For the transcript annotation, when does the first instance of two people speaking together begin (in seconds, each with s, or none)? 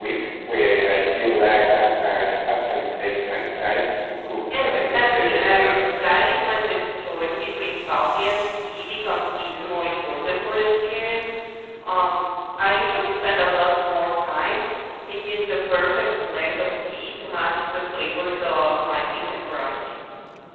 4.5 s